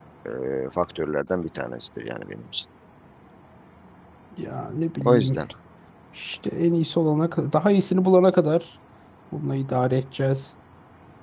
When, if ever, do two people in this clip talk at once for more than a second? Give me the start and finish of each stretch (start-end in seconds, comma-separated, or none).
none